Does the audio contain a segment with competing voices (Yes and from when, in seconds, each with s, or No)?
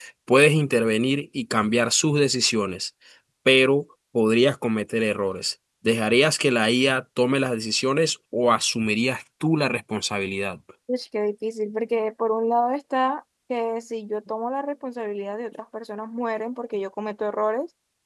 No